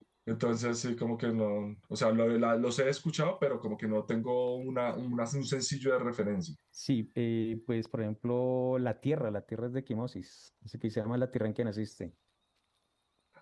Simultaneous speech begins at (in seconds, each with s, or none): none